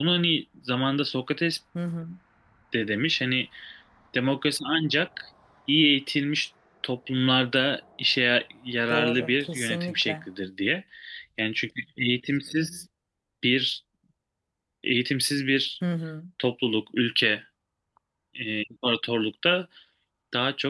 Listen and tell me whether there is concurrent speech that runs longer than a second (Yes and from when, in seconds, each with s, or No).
Yes, from 8.9 s